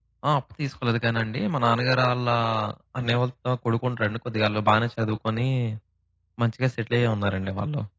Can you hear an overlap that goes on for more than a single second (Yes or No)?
No